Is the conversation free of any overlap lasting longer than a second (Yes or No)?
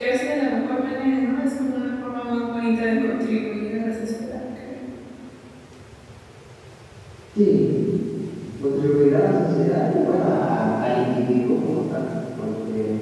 Yes